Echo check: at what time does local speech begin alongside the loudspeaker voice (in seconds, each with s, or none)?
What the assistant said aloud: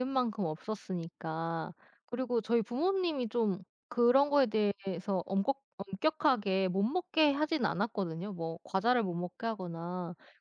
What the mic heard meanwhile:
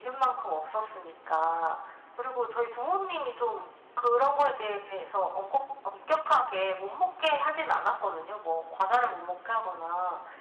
none